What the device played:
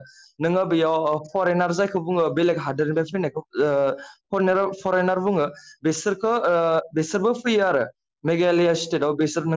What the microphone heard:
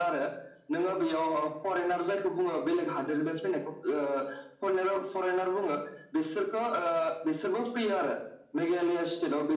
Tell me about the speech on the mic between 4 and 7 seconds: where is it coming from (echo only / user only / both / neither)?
echo only